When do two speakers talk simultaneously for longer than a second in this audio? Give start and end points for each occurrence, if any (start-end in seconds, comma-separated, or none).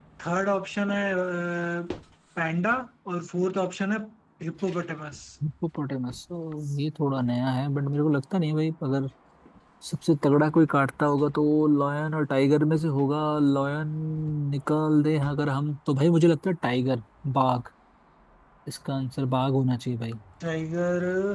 none